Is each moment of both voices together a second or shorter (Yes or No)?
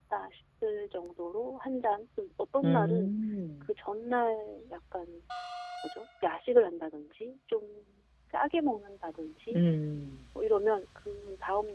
Yes